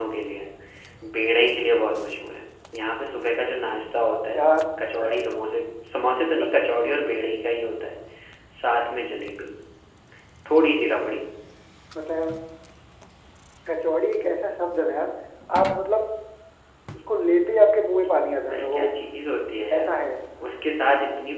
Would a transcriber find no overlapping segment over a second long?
Yes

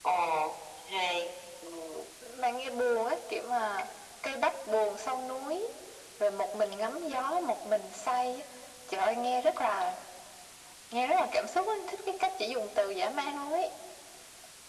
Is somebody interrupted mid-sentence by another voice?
No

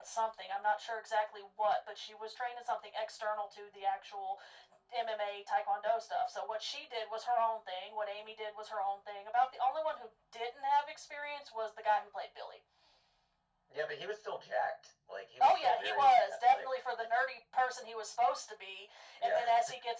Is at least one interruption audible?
Yes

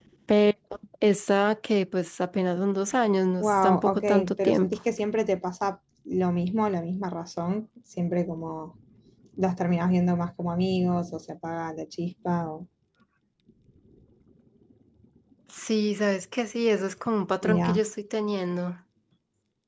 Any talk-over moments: Yes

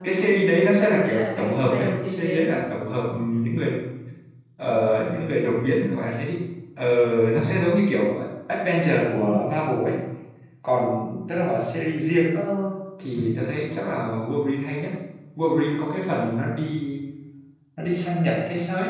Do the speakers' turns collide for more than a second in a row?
Yes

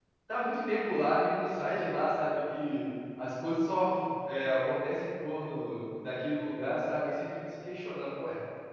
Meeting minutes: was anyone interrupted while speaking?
No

